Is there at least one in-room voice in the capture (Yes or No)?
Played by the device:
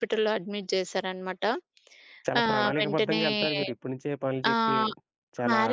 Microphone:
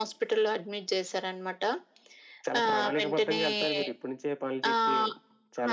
No